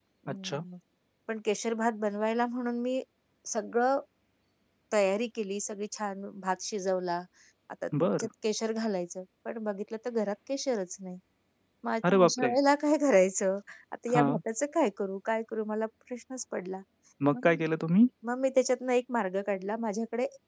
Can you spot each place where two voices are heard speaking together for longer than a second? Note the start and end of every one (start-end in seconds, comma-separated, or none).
none